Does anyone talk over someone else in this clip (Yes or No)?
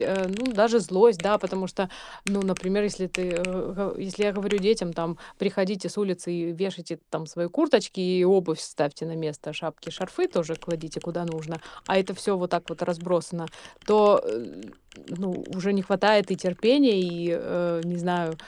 No